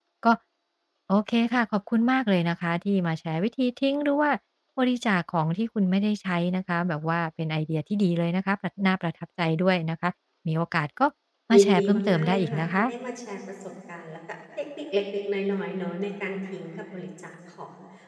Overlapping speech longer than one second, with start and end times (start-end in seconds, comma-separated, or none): 11.5-12.8